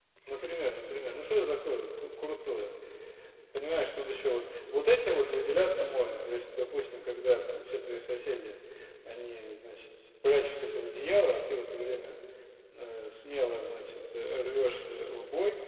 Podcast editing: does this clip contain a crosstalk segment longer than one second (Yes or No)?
No